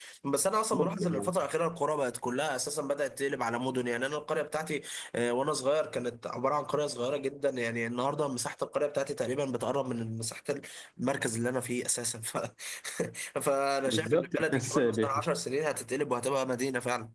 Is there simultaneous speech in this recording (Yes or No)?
Yes